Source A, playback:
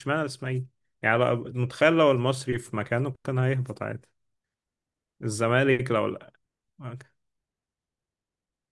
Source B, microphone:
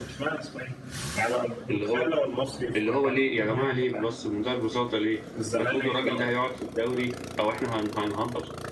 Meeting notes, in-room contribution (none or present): present